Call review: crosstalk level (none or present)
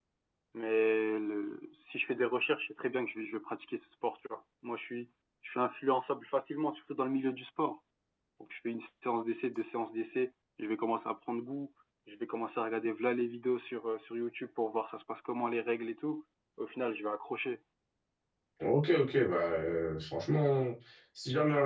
none